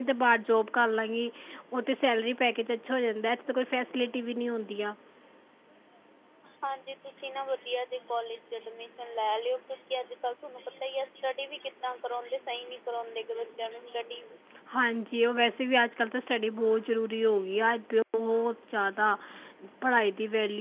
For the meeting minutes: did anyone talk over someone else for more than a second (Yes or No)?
No